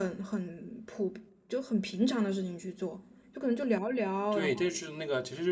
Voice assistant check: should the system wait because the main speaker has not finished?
No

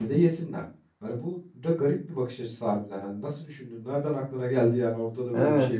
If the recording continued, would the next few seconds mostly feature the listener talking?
Yes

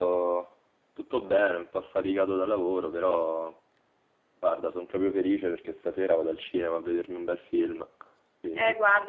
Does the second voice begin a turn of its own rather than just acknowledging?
Yes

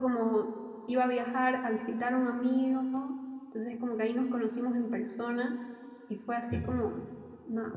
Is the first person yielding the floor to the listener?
No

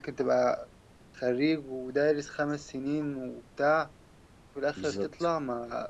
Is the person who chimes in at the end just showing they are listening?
Yes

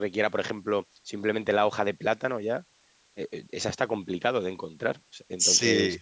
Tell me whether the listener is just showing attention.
Yes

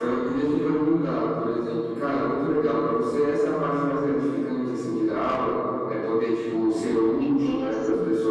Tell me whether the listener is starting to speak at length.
No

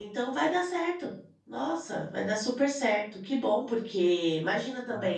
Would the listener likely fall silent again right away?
Yes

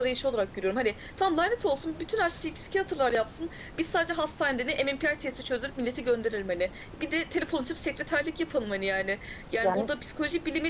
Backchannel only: Yes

